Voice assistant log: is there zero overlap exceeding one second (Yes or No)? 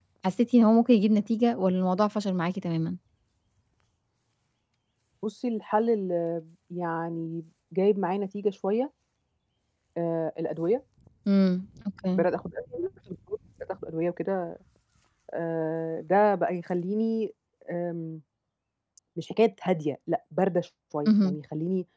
Yes